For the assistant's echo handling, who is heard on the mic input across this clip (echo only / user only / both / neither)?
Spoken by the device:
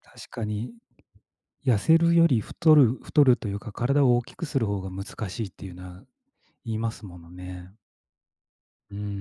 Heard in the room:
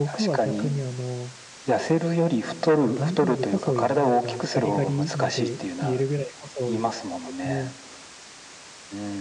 both